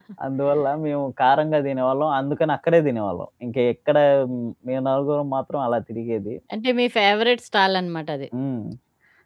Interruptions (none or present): none